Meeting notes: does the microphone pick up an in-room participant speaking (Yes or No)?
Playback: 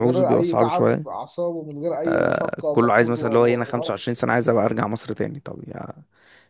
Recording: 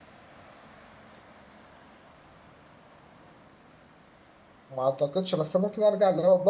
Yes